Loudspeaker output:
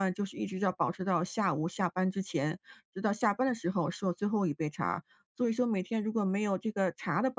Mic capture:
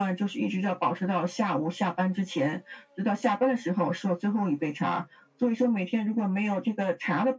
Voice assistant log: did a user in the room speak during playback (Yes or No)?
No